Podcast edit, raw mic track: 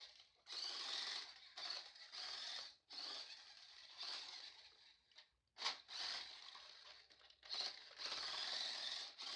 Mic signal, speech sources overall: neither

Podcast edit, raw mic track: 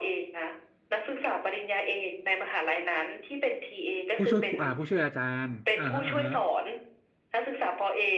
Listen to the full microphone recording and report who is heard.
both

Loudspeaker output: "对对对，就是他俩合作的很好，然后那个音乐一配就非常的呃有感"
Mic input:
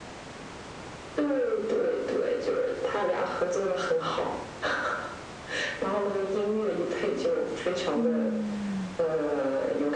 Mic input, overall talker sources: both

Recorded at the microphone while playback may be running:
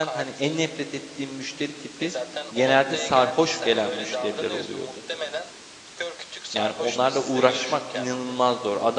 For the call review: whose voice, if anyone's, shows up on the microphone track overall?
both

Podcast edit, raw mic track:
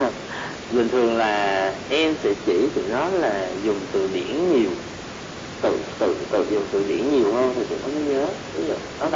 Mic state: echo only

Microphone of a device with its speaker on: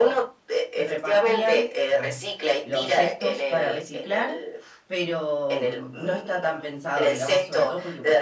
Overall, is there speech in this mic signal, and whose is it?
both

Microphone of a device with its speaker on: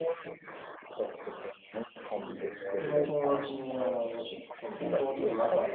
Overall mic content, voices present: both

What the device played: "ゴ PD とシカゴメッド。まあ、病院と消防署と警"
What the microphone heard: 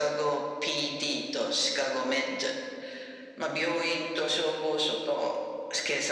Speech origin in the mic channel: echo only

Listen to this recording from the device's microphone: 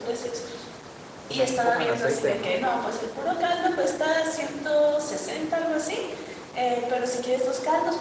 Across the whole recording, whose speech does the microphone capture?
both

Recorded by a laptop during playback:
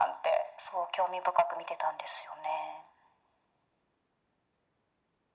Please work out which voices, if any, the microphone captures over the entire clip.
echo only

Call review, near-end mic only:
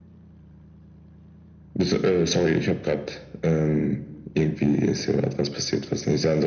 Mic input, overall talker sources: echo only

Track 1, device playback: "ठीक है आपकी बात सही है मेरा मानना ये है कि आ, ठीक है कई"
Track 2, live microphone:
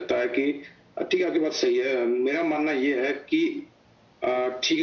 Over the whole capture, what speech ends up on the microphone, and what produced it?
echo only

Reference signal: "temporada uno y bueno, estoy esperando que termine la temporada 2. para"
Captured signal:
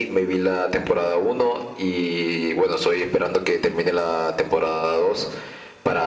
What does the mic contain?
echo only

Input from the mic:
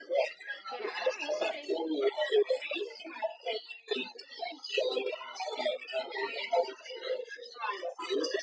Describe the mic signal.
both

